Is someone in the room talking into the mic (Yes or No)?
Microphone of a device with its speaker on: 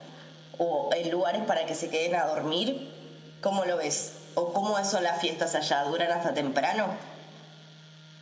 No